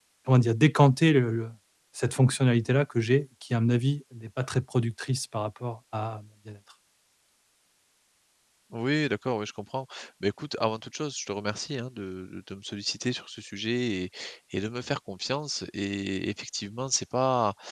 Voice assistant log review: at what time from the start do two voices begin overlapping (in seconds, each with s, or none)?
none